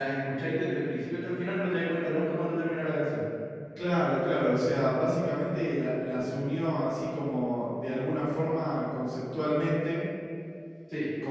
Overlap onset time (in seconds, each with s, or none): none